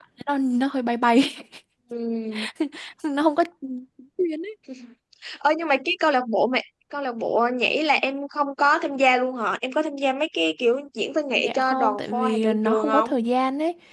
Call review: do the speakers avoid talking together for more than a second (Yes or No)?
No